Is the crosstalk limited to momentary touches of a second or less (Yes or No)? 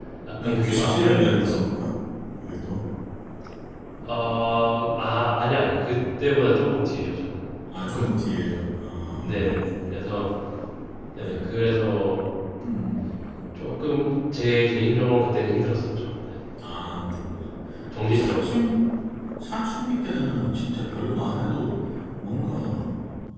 No